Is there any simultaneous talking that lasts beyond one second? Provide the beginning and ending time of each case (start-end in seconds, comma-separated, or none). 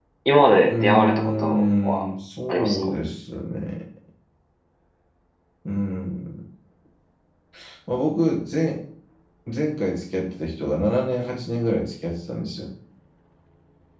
0.7-2.0